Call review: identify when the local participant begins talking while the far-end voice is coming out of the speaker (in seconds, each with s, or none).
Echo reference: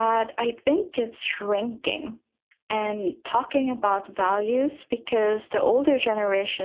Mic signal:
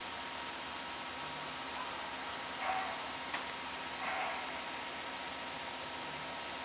none